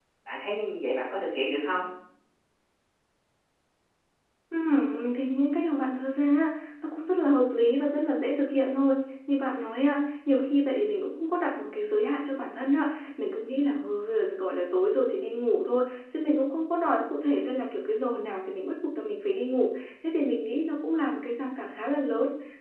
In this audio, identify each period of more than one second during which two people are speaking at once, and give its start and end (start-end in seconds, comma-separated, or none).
none